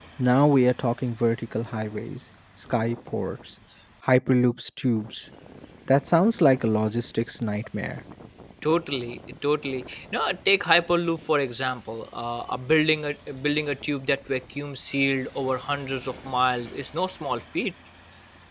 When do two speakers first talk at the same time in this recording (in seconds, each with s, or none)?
none